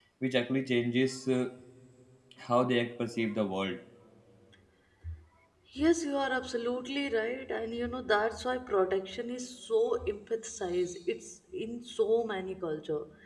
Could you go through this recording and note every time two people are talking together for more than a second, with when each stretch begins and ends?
none

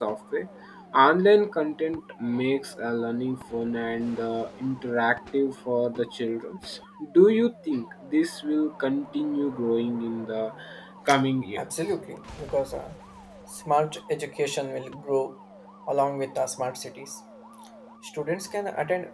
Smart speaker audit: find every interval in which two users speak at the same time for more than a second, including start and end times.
none

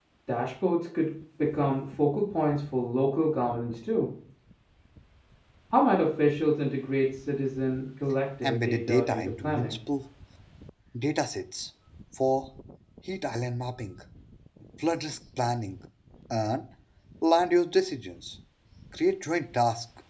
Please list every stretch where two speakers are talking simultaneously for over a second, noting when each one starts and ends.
8.4-9.8

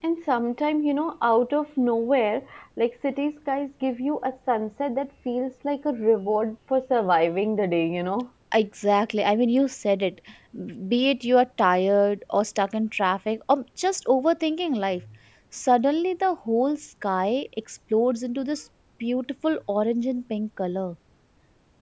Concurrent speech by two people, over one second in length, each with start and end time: none

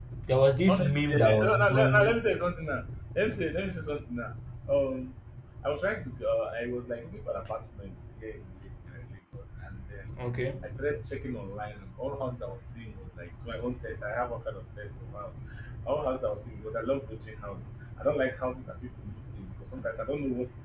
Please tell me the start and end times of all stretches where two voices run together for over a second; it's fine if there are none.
0.7-2.2

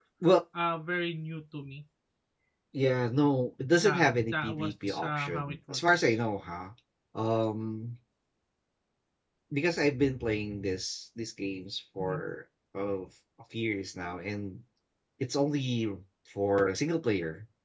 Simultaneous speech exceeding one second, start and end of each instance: 3.7-6.2

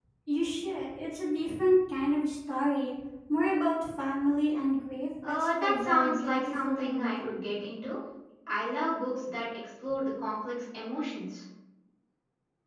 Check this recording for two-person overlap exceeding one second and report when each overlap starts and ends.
5.2-7.4

